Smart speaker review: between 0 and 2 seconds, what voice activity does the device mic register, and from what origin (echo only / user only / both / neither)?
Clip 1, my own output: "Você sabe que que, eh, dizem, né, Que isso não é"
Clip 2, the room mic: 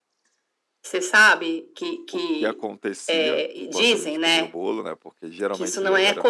echo only